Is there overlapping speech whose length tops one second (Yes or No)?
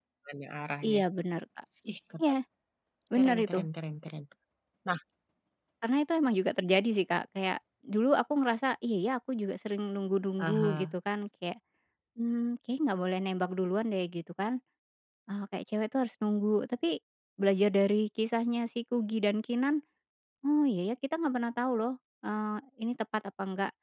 No